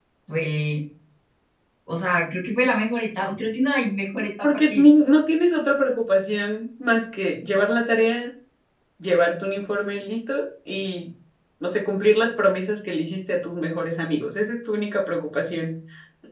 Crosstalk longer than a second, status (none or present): none